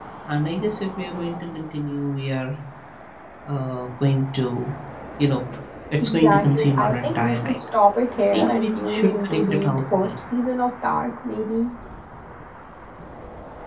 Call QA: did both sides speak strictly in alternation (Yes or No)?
No